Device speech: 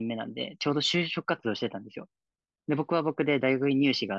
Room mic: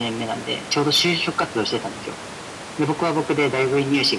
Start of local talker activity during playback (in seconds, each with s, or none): none